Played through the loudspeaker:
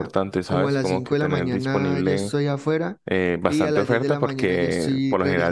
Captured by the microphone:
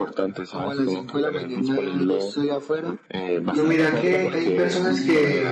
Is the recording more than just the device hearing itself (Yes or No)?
Yes